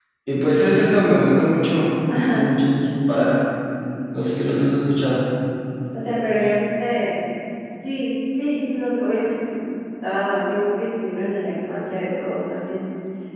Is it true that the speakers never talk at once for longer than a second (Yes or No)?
Yes